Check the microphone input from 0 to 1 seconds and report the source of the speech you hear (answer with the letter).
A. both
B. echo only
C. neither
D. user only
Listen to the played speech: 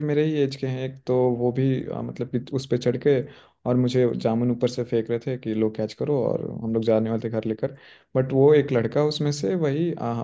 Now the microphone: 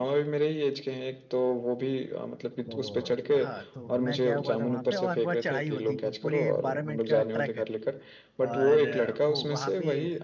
B